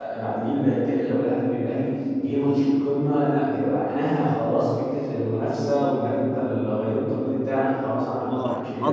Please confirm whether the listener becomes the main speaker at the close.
Yes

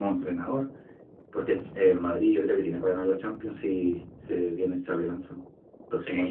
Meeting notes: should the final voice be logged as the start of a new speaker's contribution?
Yes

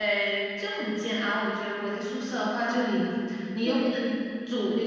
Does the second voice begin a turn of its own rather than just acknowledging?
No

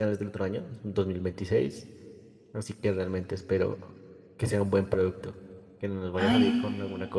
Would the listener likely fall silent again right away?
Yes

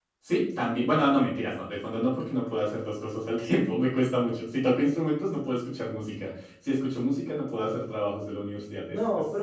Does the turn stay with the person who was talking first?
No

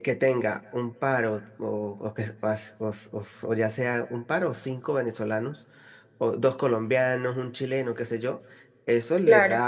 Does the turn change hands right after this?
No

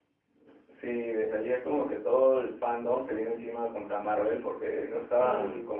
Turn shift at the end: No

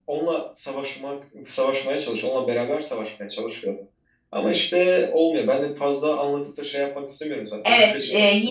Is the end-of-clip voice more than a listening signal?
Yes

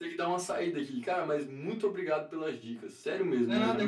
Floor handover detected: Yes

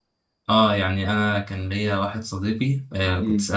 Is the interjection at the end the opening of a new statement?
No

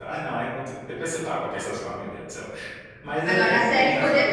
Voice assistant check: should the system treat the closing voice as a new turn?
Yes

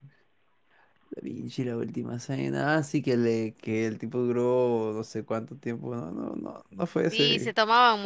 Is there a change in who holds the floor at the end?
Yes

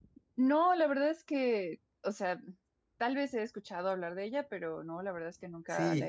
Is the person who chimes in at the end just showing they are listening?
No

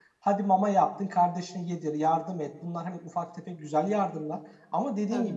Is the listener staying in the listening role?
Yes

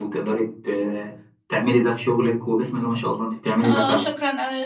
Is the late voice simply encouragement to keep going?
No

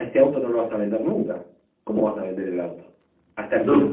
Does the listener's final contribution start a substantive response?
No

